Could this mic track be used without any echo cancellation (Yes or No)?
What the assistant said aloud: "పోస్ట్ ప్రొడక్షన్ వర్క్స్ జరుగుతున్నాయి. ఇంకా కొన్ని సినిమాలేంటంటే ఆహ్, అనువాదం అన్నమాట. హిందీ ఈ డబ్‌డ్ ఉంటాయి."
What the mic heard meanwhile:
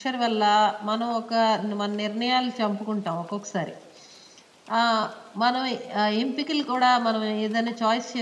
Yes